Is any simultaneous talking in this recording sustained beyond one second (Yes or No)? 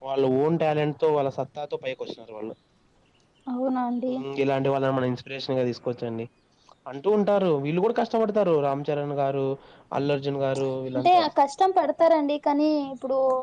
No